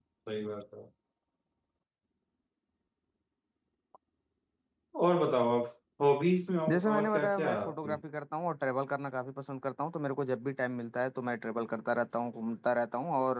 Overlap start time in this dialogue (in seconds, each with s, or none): 6.7 s